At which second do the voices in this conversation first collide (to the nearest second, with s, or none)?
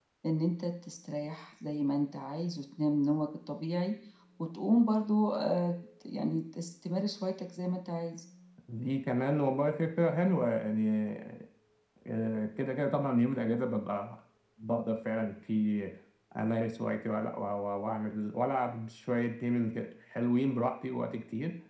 none